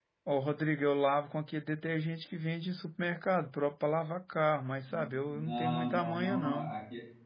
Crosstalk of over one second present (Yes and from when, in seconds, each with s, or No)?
Yes, from 5.3 s